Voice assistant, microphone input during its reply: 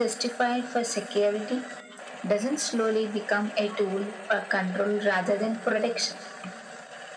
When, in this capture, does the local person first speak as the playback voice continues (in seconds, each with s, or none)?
none